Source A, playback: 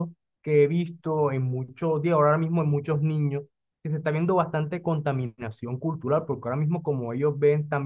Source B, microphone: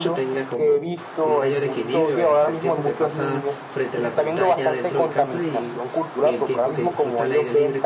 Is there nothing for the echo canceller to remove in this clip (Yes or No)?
No